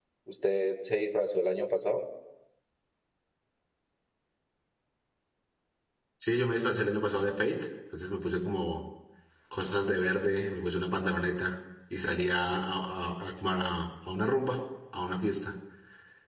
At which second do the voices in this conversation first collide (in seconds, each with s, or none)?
none